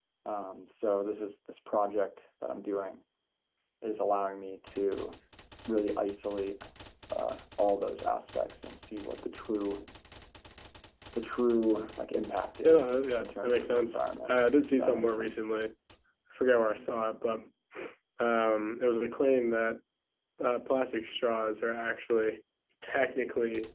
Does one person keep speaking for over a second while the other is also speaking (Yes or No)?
Yes